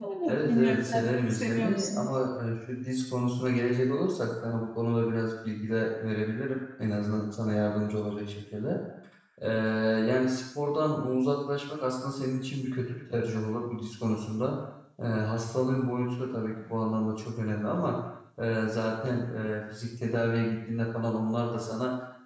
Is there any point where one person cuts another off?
Yes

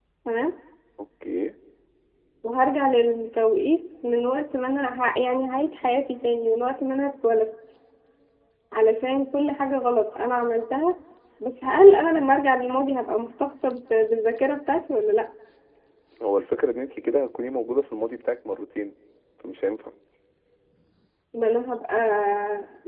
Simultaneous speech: No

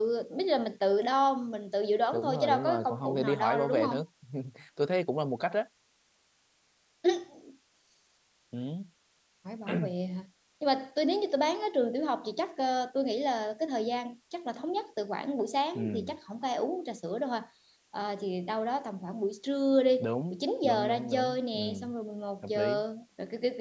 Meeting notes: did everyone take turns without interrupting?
No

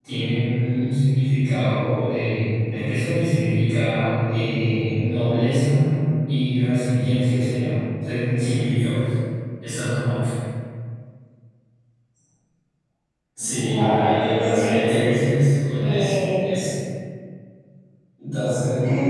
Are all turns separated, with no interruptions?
No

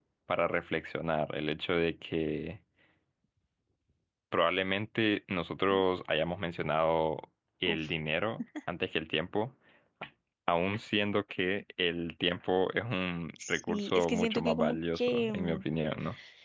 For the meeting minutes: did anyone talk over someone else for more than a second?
Yes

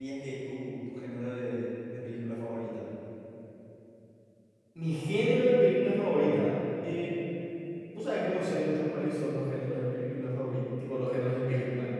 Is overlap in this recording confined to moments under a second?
Yes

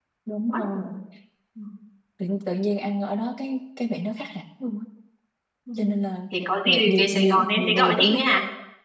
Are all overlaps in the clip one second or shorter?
No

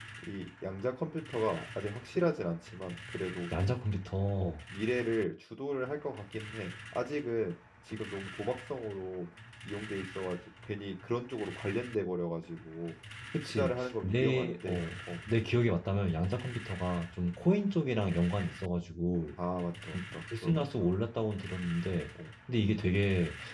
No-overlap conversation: No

